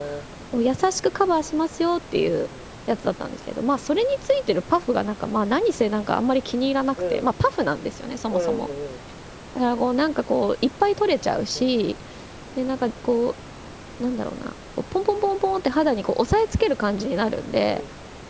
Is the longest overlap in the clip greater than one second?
No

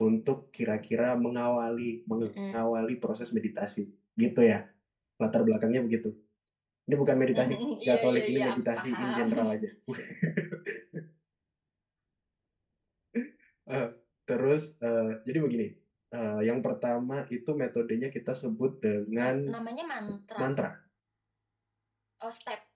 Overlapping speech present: Yes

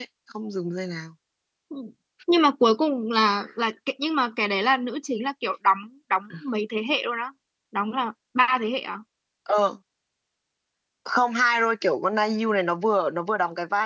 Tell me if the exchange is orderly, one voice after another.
Yes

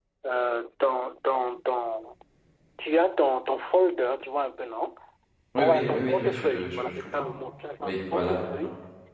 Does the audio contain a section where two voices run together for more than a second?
Yes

